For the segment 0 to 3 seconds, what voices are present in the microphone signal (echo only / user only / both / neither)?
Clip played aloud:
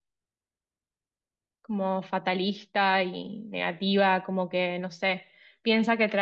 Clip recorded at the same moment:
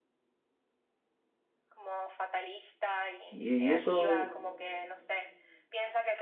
echo only